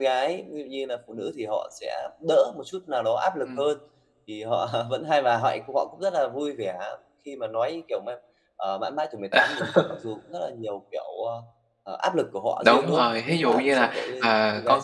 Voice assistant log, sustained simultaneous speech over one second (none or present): present